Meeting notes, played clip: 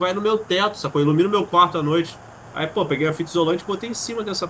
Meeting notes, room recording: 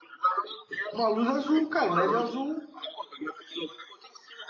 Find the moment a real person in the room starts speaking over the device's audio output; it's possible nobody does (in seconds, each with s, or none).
0.9 s